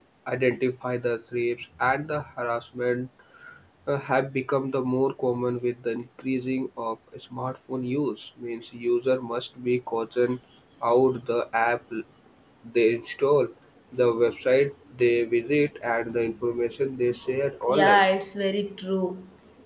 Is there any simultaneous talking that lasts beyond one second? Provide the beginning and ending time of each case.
none

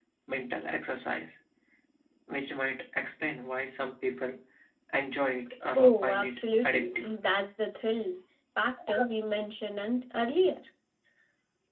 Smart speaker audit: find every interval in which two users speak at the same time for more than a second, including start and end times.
5.8-7.1

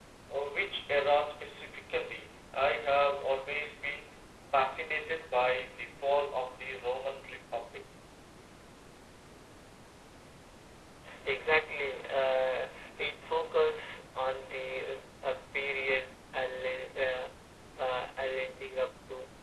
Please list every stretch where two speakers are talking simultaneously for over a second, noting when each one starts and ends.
none

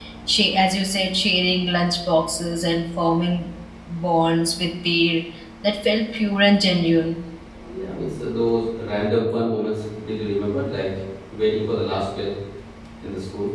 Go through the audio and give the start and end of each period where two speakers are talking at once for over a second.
none

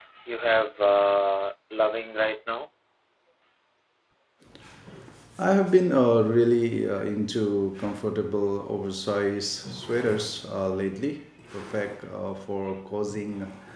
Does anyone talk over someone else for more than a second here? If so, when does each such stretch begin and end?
none

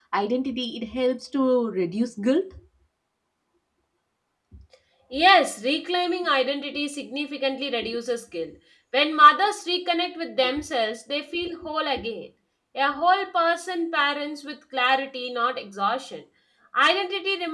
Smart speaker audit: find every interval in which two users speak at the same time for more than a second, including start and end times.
none

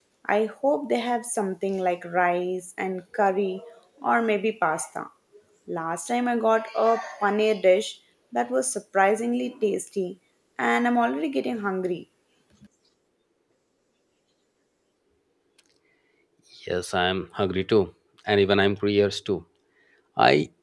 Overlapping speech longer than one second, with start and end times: none

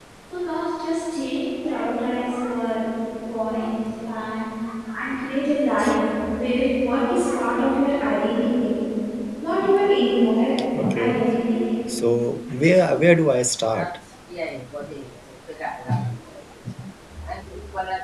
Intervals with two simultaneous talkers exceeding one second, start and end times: none

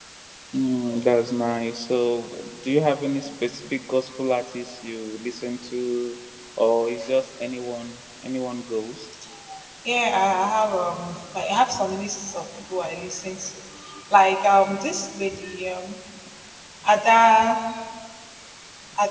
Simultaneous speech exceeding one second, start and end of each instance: none

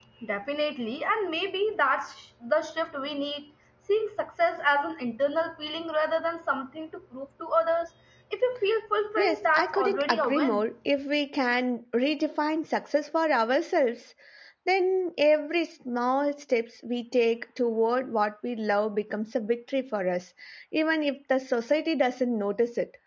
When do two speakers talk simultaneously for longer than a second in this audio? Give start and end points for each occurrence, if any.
9.2-10.6

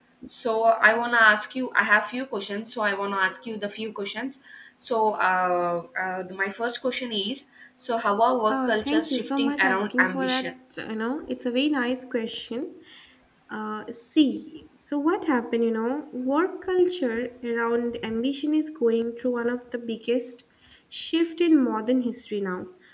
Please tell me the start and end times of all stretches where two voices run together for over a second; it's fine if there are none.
8.5-10.5

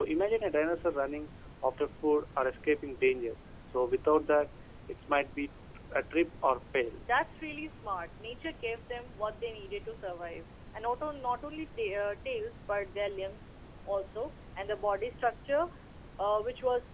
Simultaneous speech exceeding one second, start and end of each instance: none

